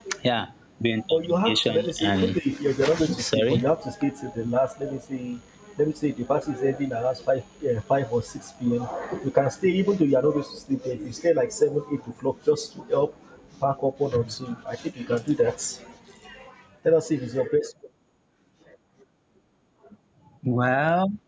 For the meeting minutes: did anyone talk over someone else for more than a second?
Yes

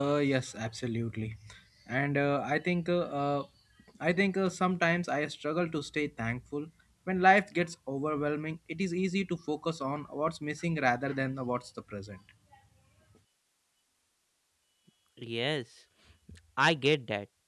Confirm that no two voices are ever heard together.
Yes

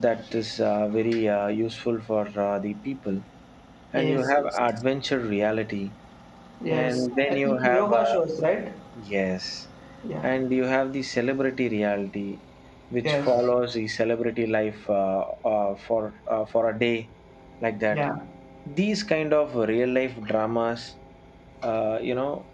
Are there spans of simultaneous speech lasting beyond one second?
Yes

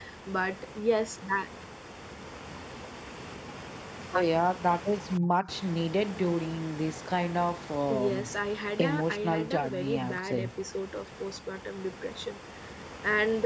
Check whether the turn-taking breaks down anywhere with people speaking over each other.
Yes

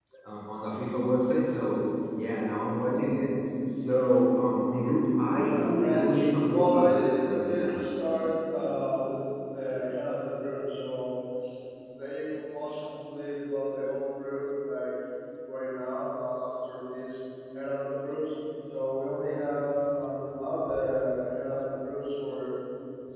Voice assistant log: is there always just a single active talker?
No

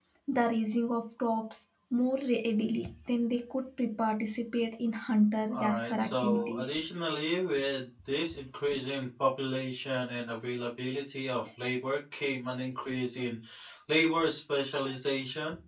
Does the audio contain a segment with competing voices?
Yes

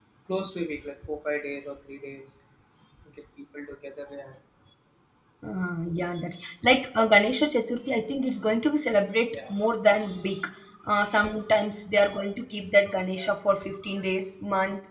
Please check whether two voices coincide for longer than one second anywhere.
No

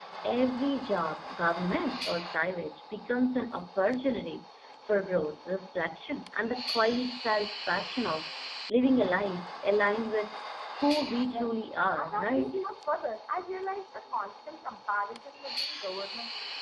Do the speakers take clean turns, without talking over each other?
No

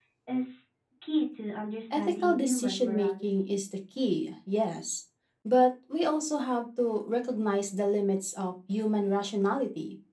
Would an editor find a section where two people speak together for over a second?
Yes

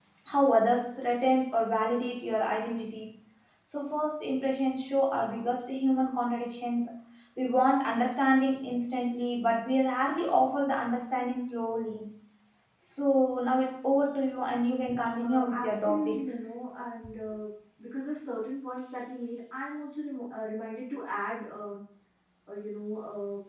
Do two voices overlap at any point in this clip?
Yes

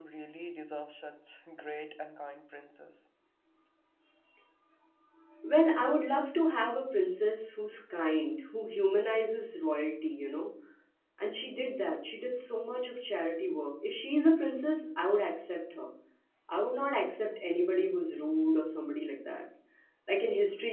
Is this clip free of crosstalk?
Yes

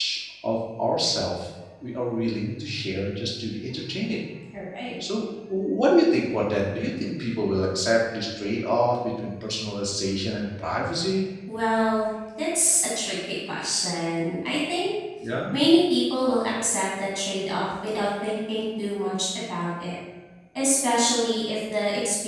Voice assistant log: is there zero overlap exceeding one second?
Yes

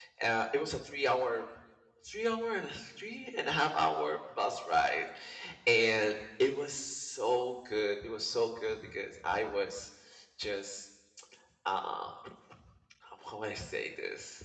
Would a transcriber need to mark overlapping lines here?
No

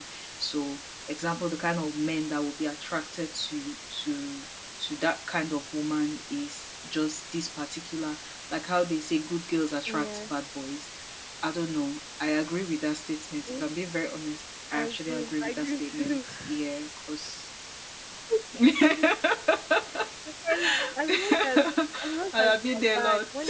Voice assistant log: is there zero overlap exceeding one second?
No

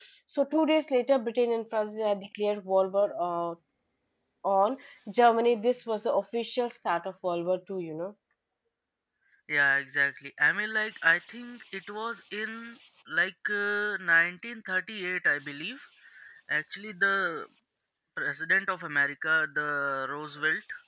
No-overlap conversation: Yes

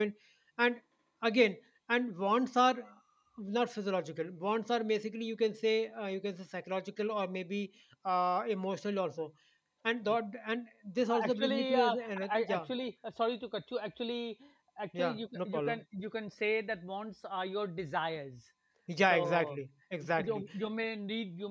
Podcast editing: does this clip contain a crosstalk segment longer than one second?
Yes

